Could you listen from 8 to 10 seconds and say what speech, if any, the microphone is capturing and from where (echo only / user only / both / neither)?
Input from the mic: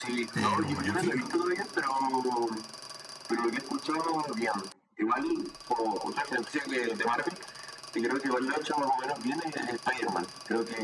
echo only